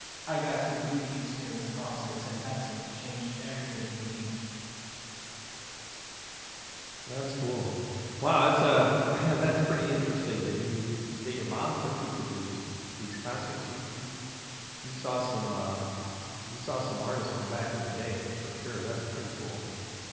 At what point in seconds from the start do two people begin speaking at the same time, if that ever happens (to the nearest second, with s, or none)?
none